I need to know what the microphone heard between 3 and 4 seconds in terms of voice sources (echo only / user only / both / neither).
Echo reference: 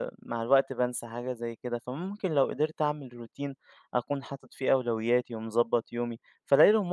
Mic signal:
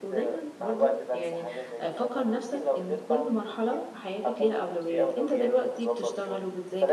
both